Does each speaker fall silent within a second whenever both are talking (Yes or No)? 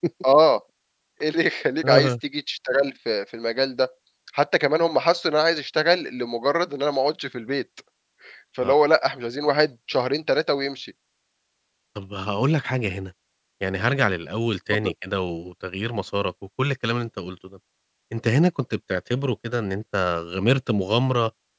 Yes